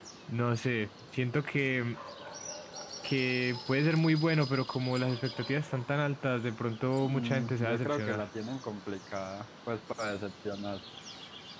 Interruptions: present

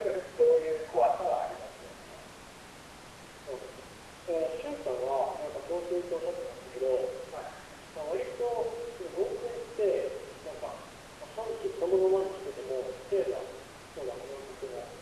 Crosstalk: none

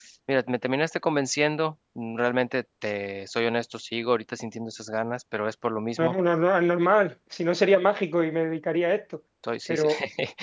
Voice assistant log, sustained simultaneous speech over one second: none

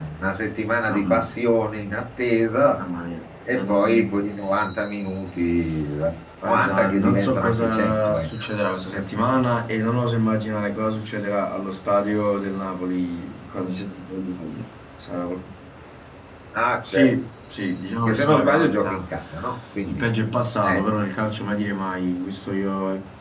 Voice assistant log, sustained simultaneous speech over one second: present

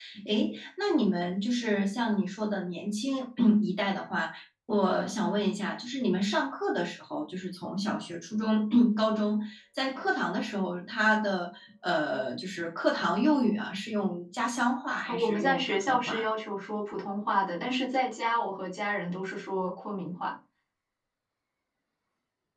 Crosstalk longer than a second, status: present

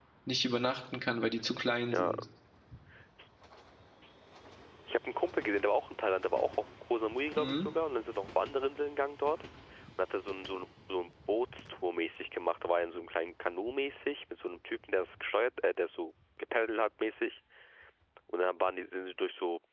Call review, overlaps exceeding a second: none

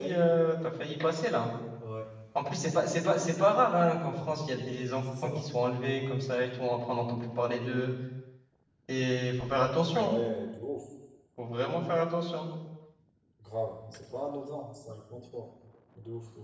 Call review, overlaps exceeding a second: none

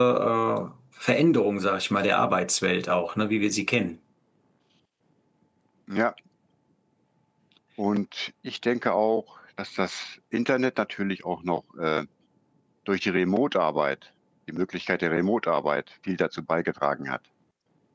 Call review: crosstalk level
none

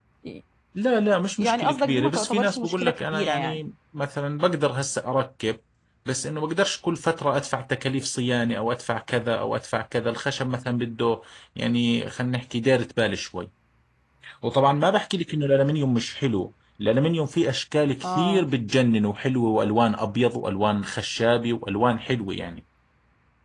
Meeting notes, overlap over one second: present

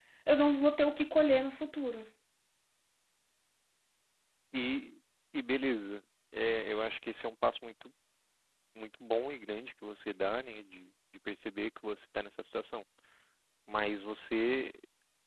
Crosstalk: none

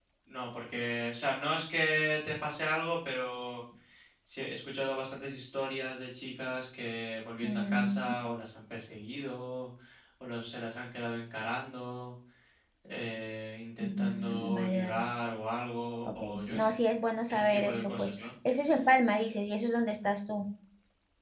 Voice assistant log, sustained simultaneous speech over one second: present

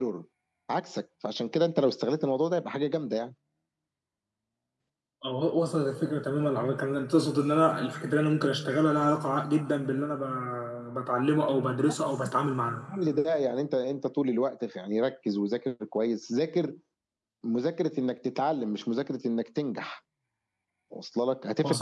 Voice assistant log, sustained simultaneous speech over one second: none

